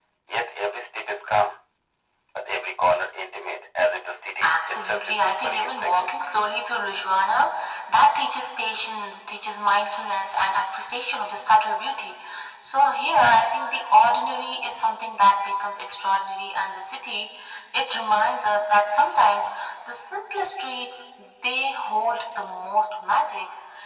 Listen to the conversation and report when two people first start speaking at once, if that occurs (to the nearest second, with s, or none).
4 s